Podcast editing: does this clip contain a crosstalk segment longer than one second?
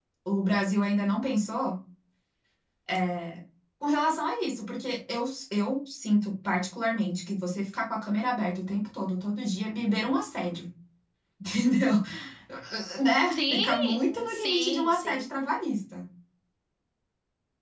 Yes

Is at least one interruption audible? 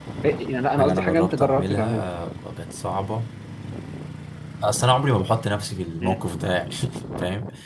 Yes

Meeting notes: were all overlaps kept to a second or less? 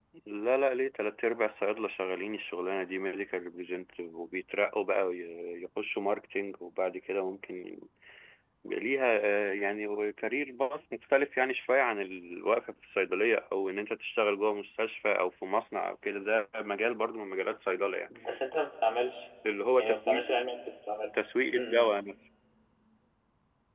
Yes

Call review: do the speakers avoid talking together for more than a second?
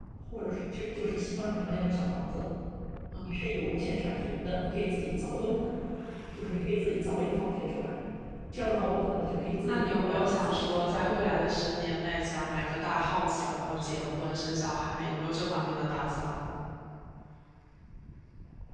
No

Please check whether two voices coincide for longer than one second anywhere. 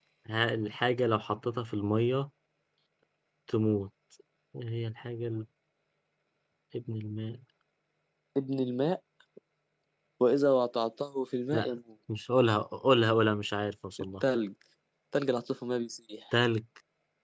No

